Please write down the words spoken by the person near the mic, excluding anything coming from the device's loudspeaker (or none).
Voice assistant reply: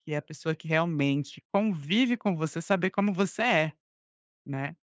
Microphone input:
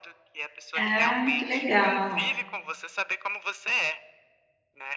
Ah, que legal.